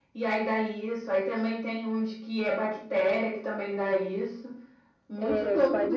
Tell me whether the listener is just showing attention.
No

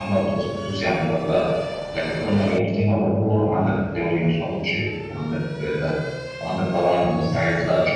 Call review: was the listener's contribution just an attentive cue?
Yes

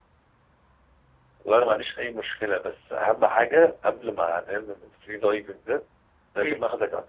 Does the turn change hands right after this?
No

